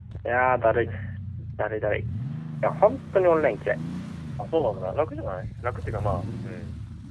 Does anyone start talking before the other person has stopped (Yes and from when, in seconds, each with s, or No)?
No